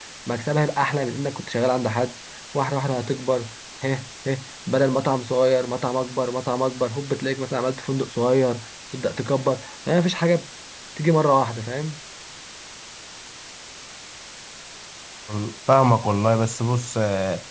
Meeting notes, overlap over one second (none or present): none